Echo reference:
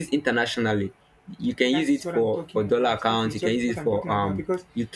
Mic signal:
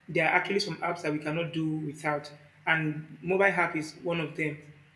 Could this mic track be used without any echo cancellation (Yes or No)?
Yes